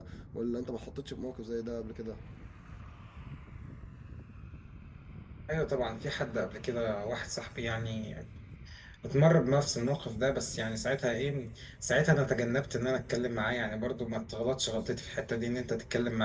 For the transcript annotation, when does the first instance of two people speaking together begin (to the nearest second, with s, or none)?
none